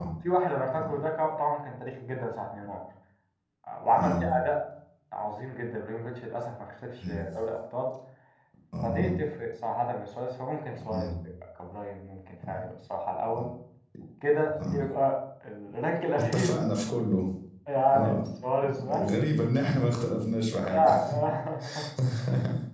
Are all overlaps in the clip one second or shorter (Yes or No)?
Yes